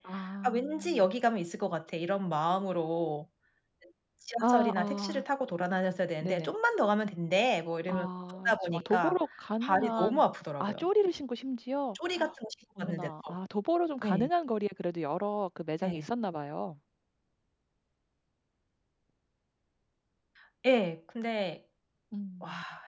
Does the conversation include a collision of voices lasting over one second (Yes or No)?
Yes